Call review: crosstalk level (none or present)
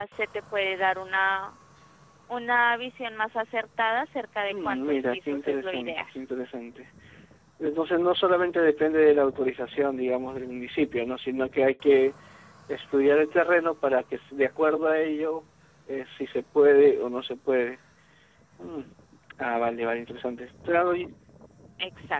present